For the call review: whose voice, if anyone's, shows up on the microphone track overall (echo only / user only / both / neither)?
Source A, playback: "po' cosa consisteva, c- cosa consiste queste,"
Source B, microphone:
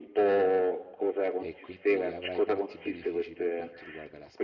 both